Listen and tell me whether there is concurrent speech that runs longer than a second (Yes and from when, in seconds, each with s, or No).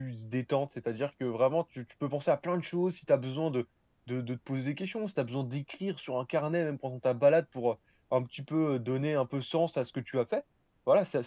No